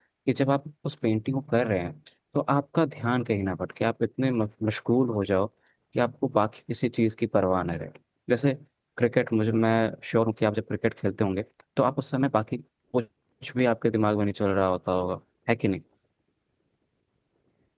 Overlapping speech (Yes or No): No